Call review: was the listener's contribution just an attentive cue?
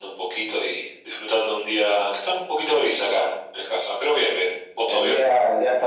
No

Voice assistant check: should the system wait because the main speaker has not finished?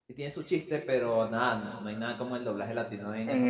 No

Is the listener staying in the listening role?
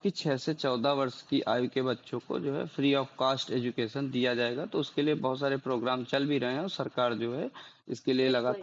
No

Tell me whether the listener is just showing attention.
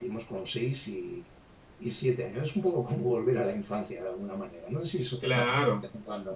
No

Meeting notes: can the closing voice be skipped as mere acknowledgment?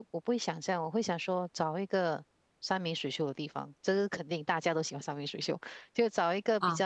Yes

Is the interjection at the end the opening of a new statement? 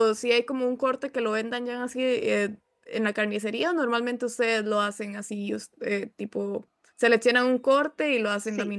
Yes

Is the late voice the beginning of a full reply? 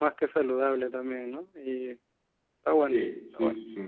Yes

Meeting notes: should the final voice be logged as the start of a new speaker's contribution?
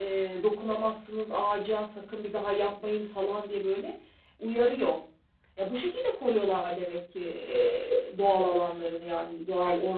Yes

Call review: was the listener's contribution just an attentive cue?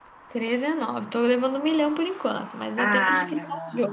No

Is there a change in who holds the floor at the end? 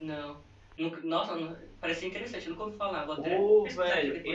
Yes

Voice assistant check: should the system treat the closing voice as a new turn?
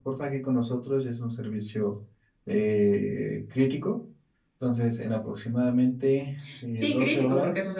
Yes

